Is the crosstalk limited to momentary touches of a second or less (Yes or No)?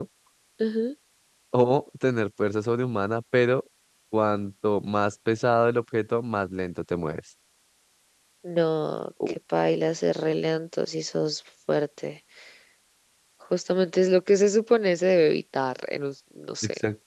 Yes